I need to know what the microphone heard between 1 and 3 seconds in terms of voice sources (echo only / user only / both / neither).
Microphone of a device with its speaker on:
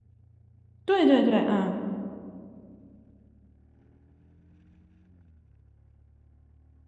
user only